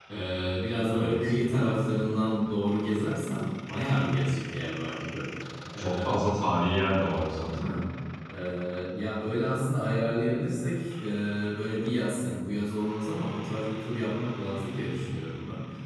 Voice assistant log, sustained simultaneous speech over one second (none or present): none